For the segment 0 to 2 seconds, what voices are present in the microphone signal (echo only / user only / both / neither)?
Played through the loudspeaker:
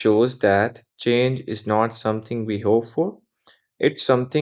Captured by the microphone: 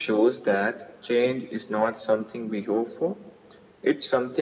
echo only